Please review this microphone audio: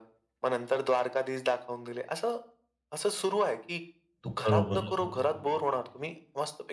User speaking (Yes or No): Yes